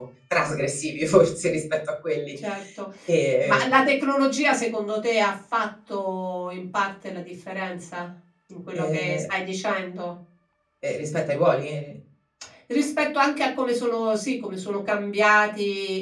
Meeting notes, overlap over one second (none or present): none